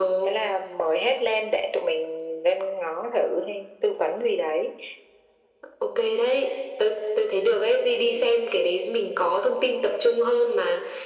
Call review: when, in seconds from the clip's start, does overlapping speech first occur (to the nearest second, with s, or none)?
none